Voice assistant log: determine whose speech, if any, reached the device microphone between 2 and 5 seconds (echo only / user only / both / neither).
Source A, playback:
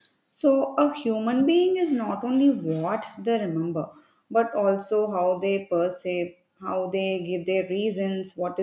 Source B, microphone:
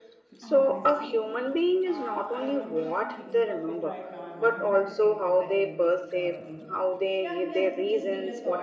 both